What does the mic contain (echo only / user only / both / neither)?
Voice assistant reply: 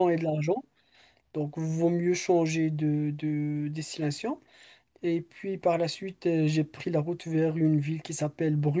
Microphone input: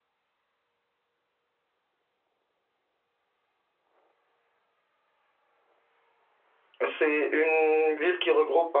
user only